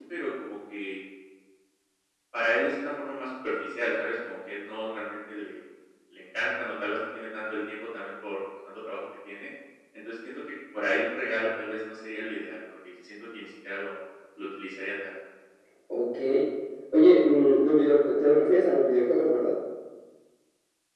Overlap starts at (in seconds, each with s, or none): none